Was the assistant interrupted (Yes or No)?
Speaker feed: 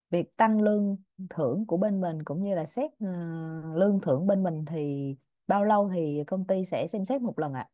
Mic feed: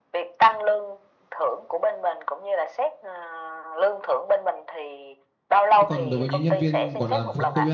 Yes